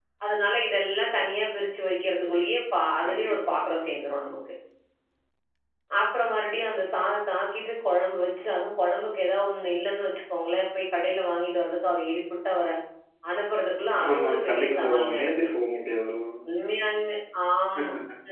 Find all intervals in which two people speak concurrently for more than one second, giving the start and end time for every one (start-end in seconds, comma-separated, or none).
14.1-15.5